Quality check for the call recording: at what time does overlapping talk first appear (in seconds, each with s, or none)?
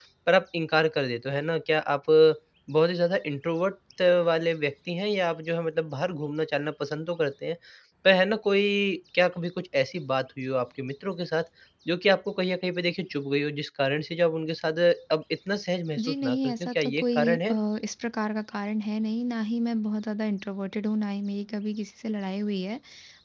16.0 s